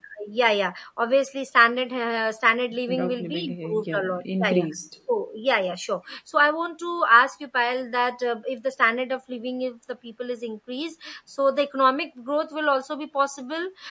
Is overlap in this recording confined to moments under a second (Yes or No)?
No